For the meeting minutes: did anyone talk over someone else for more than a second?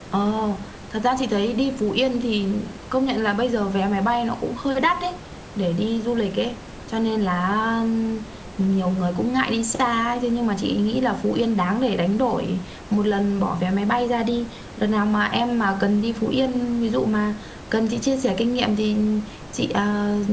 No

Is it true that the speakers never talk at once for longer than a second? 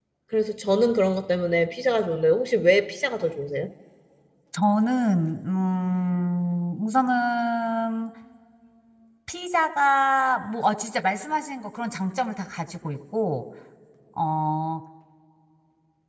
Yes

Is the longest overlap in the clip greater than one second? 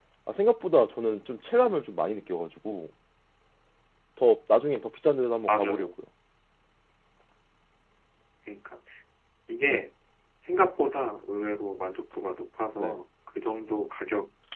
No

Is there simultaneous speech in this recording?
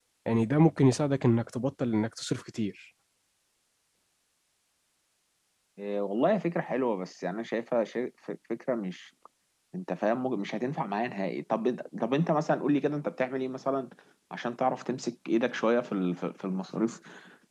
No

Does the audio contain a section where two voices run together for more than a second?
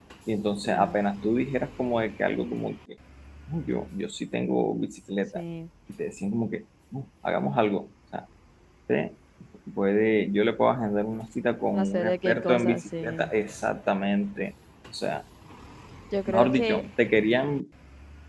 Yes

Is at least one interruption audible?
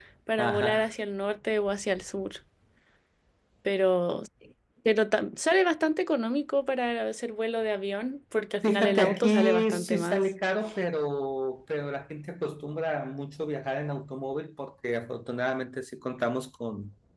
Yes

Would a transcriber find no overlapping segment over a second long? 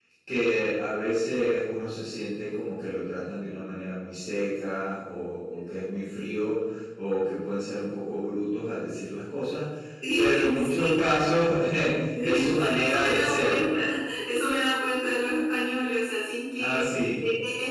No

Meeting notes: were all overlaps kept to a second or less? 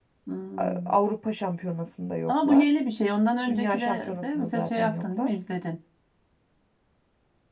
No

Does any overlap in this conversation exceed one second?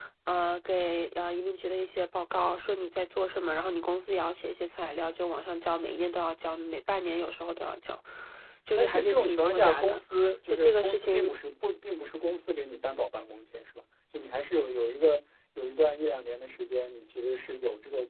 Yes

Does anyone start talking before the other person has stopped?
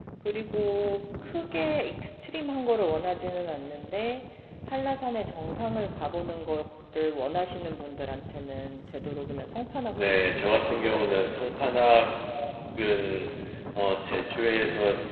Yes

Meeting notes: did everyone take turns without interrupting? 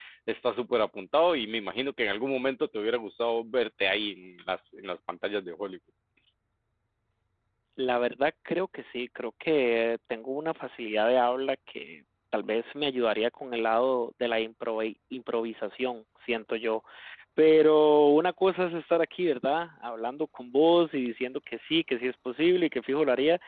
Yes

